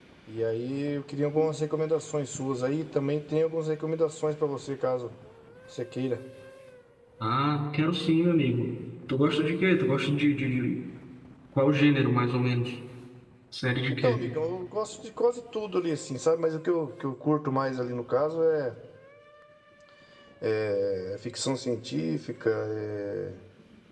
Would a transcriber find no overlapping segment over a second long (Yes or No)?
Yes